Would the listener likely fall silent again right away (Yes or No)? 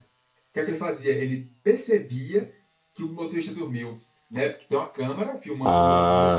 Yes